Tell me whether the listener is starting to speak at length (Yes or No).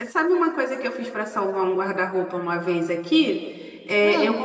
No